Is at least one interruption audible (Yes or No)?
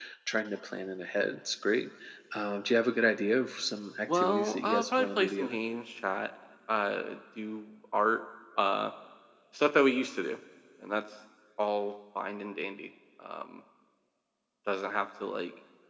Yes